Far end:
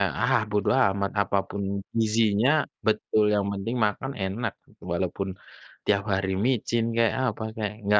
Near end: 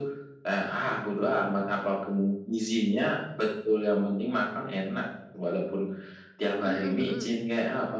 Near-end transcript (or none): Hmm hmm.